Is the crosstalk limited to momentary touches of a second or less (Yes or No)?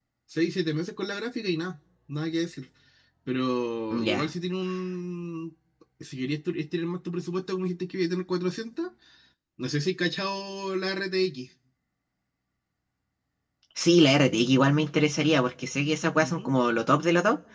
Yes